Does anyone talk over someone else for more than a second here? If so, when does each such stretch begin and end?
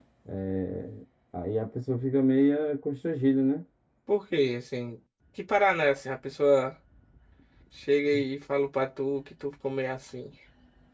none

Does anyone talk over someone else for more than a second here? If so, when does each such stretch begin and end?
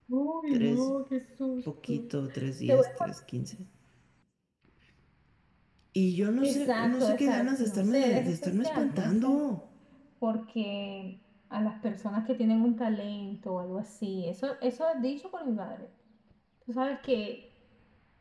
6.4-9.4

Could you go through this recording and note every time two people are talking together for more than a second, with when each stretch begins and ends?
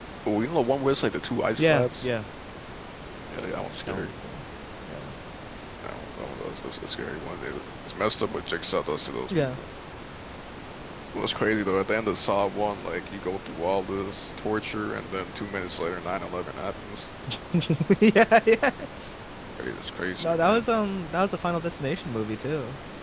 none

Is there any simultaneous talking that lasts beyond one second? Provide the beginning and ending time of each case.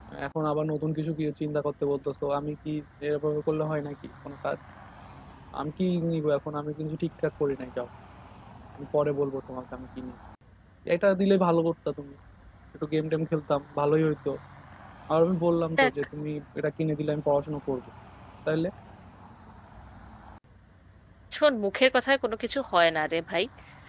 none

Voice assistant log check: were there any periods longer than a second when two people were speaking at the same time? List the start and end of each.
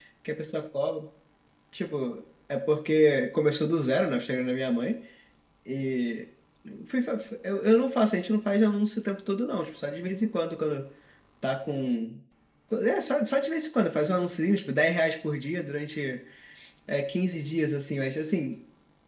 none

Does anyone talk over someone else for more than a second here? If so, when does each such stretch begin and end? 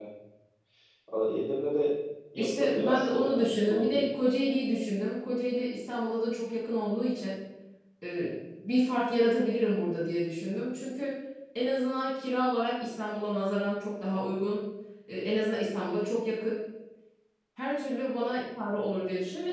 2.4-3.9

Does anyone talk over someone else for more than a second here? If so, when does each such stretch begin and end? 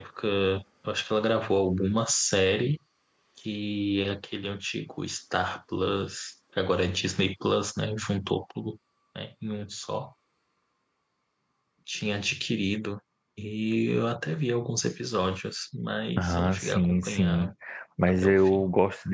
16.2-17.5

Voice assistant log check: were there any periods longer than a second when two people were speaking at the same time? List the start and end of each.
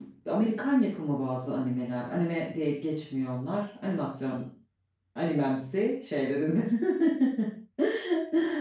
none

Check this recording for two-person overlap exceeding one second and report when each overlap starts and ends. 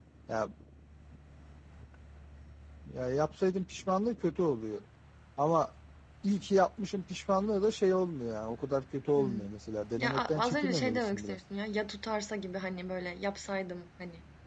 10.0-11.4

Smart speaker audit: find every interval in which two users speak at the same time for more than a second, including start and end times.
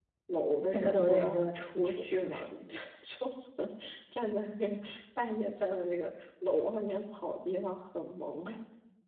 0.7-2.4

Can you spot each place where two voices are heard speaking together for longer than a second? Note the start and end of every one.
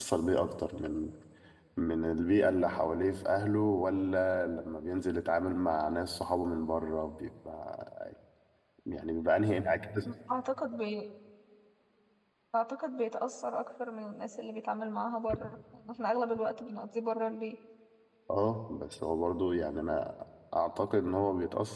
none

